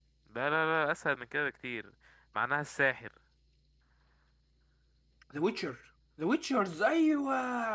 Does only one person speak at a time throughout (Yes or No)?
Yes